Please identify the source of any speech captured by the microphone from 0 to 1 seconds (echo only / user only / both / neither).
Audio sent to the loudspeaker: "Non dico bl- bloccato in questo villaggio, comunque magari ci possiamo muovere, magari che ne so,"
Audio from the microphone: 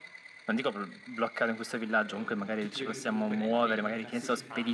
echo only